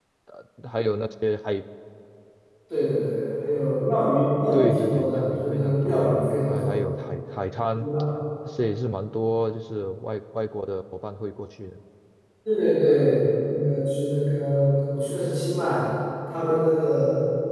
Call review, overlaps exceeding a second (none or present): present